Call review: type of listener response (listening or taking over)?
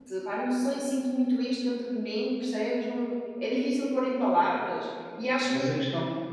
taking over